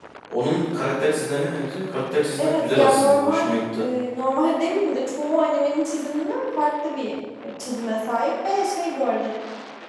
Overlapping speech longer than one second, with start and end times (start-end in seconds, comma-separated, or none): 2.4-3.8